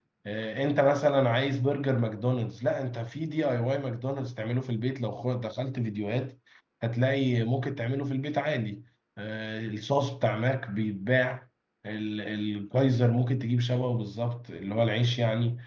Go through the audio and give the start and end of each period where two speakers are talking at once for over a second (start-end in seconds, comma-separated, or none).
none